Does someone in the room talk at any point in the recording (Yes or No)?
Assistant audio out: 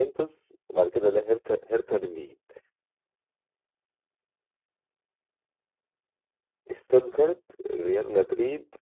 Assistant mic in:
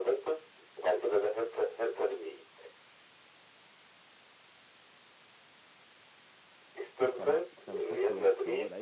Yes